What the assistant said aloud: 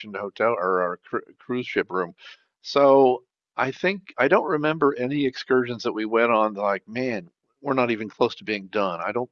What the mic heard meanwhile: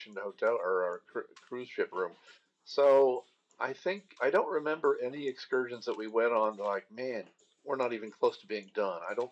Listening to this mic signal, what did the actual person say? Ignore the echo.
none

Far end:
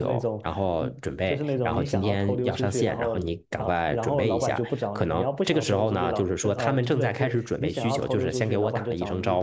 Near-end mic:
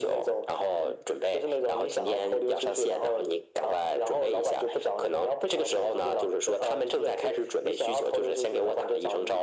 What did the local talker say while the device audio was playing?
none

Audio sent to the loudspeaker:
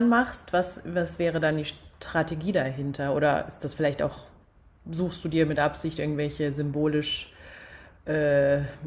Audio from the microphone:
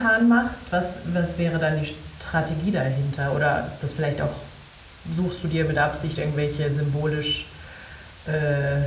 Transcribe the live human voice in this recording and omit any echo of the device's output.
none

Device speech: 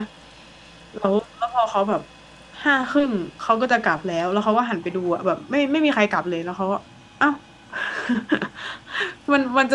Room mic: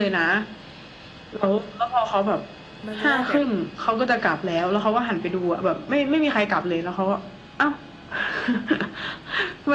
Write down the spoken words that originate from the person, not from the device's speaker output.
มันจะได้แบบ

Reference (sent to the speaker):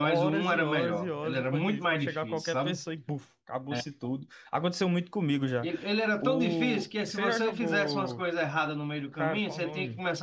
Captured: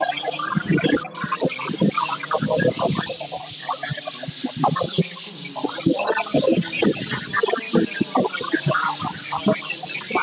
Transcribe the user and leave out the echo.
none

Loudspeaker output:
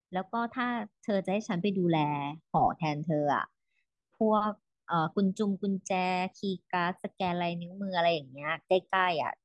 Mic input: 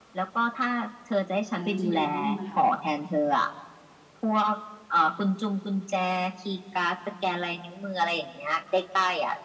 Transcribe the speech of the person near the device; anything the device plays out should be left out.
อันนั้นจะโยนให้พี่มาทำต่อ

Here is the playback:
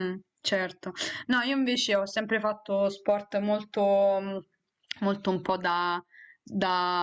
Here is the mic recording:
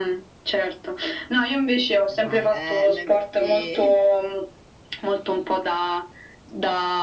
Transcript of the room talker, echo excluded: Ne fai. Eh, ma infatti

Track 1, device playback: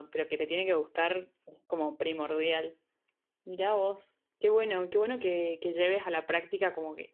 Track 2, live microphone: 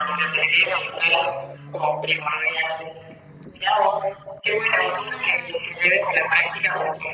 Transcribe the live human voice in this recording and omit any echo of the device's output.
none

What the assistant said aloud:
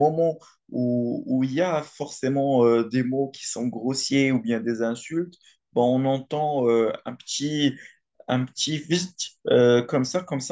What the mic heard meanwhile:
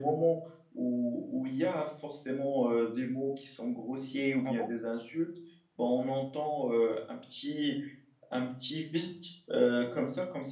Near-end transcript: Ah bon?

